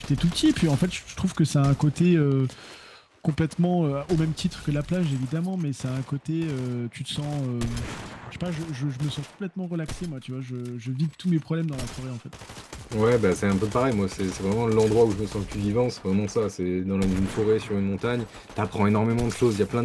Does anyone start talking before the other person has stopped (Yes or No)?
No